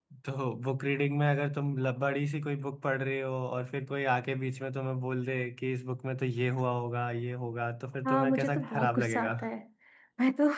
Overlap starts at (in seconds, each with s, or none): 8.0 s